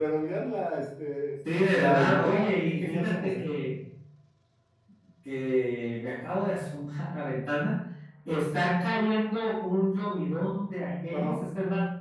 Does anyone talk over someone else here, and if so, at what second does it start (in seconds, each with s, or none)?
1.7 s